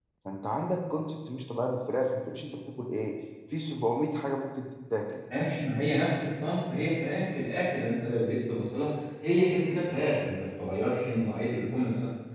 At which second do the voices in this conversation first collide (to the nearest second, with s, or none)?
none